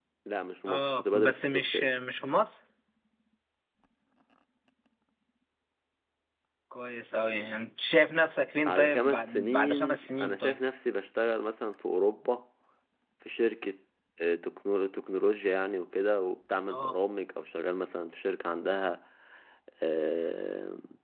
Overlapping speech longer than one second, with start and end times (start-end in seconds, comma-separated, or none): 0.7-1.9, 8.6-10.6